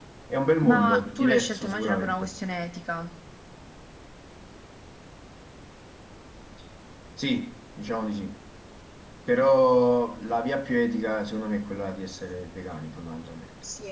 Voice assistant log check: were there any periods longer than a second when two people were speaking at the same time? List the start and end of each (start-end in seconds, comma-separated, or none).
0.6-2.3